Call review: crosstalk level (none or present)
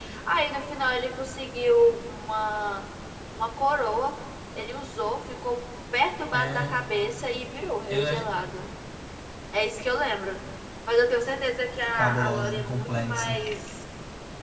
present